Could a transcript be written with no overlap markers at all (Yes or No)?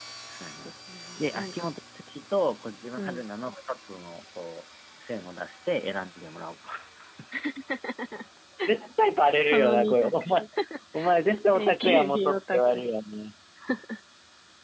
No